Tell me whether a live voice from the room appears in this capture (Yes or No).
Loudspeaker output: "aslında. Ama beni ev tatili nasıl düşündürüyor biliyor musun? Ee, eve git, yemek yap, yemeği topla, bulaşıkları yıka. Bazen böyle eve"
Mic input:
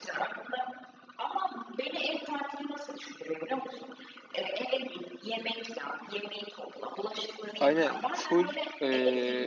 Yes